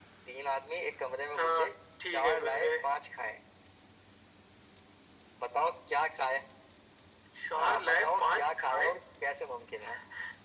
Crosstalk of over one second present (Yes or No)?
Yes